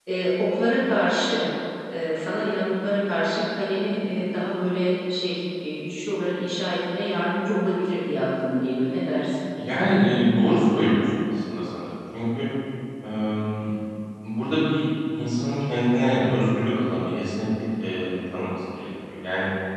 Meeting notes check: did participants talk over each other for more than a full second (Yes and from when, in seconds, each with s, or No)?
No